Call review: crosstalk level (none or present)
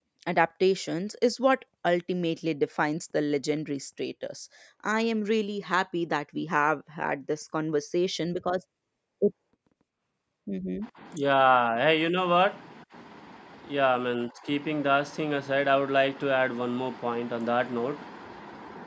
none